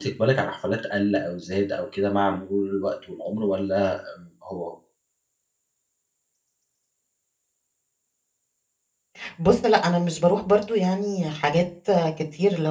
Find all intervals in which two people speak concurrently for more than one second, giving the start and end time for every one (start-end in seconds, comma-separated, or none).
none